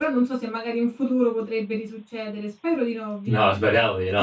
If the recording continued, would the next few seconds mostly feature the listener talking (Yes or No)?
Yes